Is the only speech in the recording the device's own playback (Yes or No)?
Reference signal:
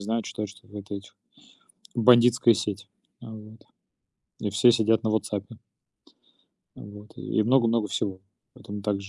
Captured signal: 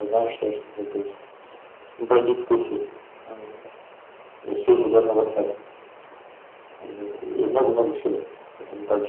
Yes